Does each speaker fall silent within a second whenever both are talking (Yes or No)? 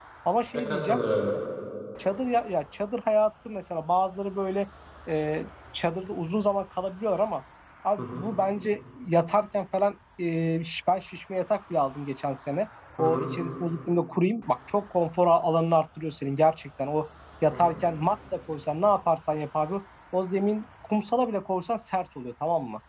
Yes